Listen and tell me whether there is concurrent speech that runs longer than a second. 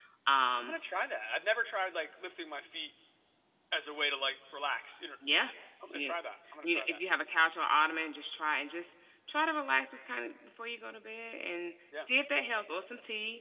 No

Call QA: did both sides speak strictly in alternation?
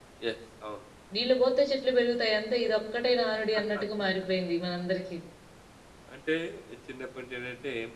Yes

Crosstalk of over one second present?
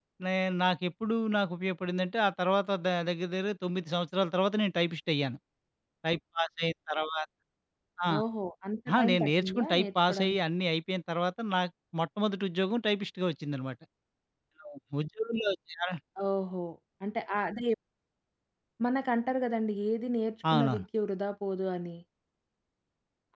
Yes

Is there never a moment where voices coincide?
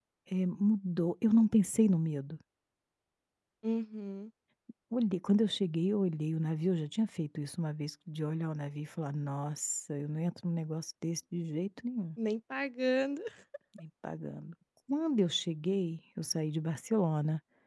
Yes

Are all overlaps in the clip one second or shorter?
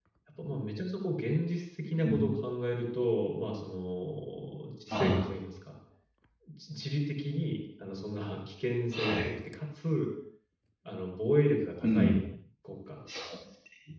Yes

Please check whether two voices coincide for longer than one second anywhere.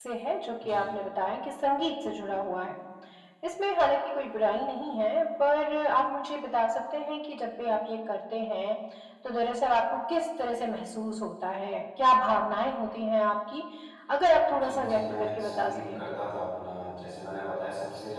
Yes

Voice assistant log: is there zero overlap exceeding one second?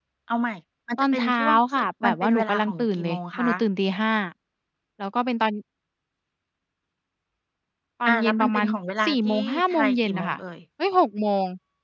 No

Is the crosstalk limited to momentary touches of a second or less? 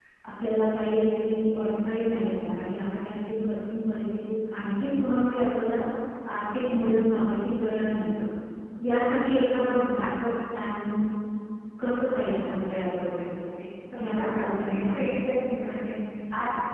No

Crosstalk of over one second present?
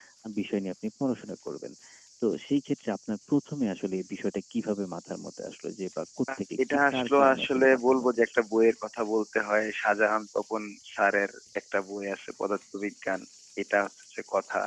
Yes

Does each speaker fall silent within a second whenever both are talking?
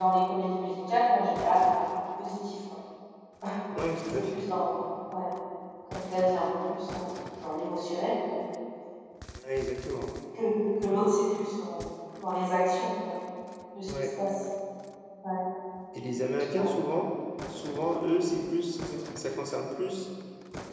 Yes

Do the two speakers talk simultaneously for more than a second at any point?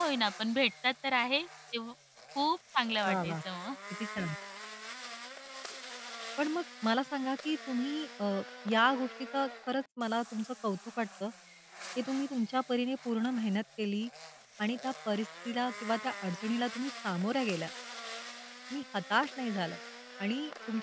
No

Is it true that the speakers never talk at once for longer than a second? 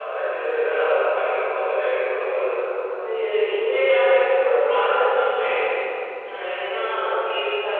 Yes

